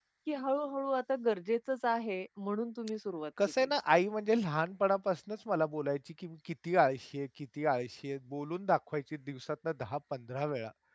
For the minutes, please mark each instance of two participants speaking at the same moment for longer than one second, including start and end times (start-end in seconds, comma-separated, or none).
none